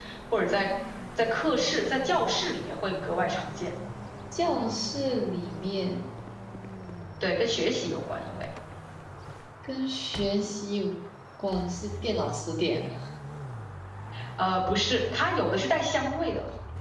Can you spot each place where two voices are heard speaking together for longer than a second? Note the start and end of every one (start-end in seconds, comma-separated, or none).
none